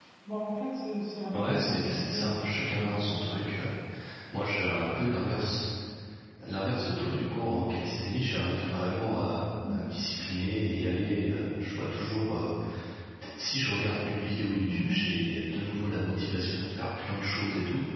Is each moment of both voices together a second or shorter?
No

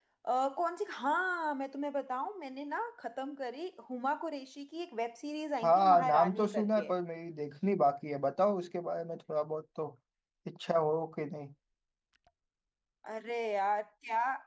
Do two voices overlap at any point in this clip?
Yes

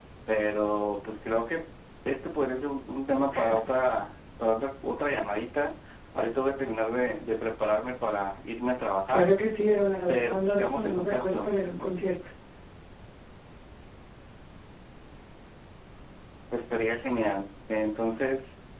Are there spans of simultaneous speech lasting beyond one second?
Yes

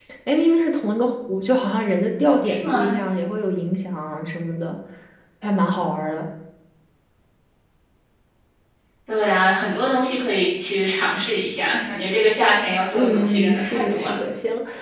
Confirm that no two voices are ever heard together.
No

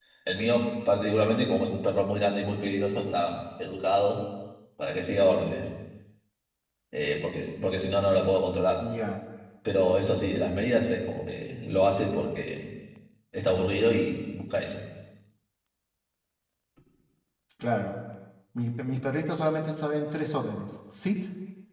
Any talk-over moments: No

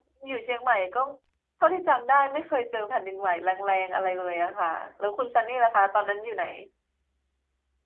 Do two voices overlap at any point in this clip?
No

